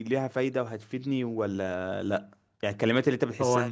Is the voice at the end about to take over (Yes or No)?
No